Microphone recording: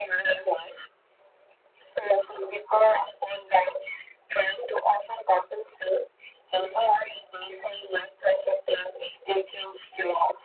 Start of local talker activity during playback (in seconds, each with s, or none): none